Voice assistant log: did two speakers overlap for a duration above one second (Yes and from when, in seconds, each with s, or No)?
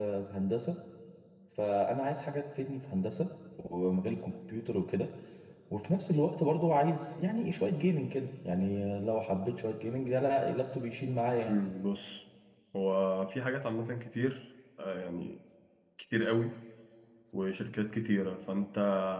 No